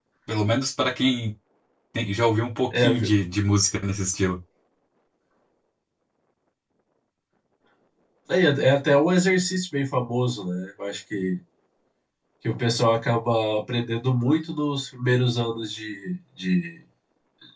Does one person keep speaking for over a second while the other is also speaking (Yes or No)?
No